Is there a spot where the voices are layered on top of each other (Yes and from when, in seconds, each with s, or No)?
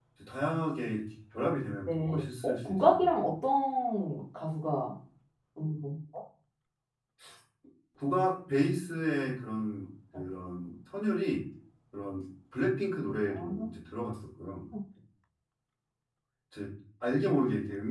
Yes, from 1.9 s